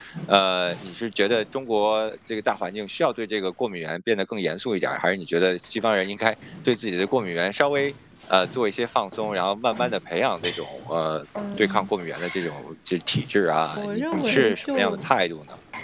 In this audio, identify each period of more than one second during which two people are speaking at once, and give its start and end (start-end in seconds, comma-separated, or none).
13.8-15.1